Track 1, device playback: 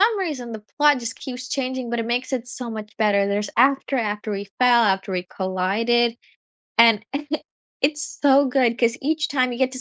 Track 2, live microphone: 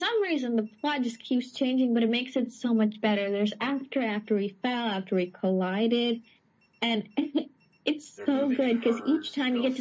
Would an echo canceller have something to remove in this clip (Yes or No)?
Yes